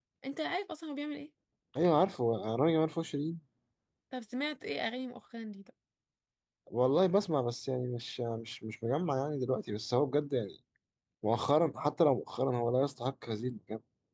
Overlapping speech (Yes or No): No